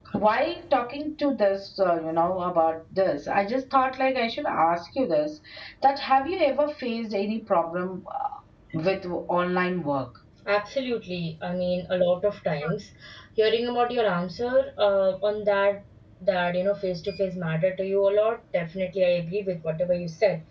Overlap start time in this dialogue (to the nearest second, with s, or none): none